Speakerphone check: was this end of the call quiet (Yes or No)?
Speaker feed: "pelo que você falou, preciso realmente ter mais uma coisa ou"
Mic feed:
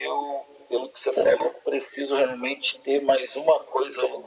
Yes